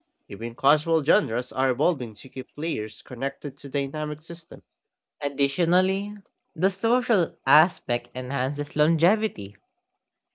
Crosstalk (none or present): none